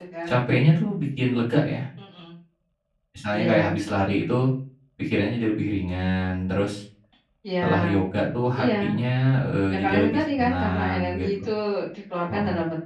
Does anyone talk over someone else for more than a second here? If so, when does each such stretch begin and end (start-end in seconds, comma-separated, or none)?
9.7-11.5